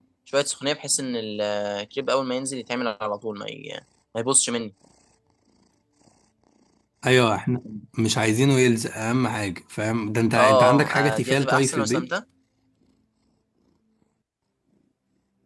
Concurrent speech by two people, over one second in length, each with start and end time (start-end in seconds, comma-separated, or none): 10.4-12.1